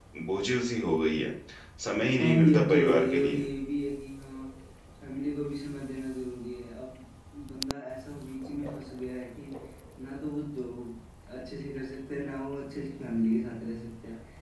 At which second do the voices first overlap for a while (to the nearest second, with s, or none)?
2 s